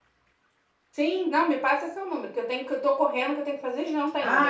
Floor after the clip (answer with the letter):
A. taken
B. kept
A